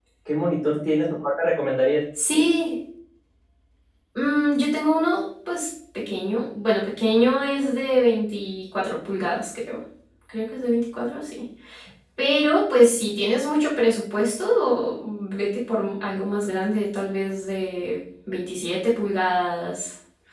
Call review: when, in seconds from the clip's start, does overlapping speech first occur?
none

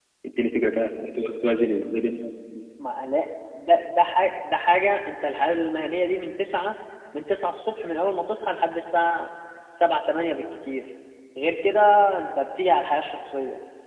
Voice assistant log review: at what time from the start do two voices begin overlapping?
none

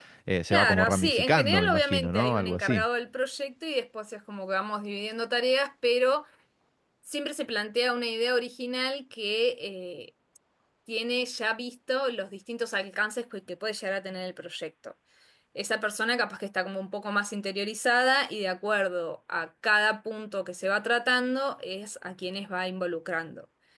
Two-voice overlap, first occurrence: 0.5 s

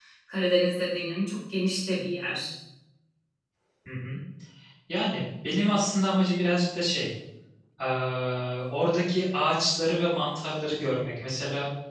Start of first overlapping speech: none

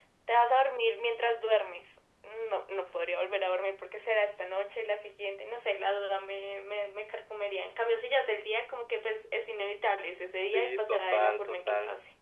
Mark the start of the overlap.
10.4 s

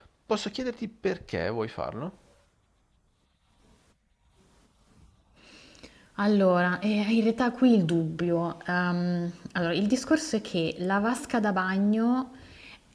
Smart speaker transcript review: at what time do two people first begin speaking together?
none

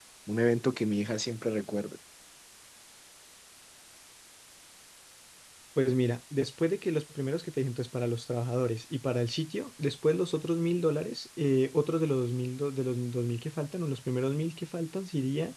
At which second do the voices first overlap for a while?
none

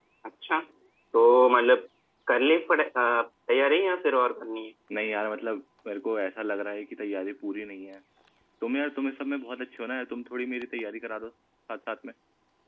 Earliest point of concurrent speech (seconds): none

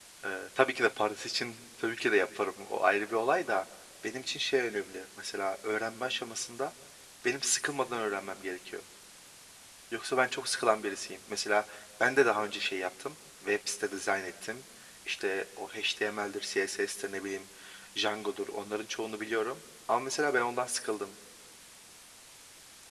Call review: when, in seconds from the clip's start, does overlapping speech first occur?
none

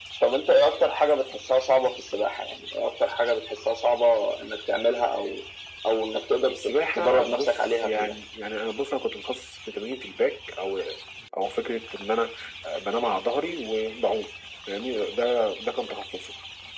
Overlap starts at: 6.5 s

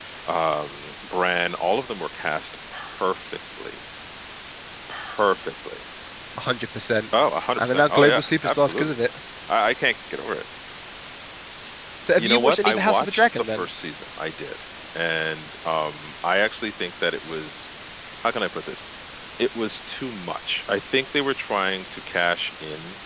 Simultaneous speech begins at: 7.6 s

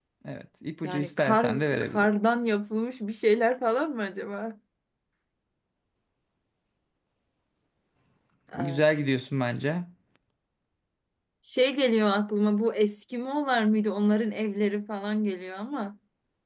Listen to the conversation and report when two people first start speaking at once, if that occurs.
0.8 s

